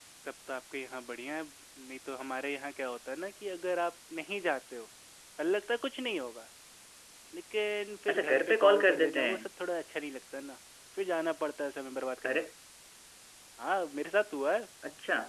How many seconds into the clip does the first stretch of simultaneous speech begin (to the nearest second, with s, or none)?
8 s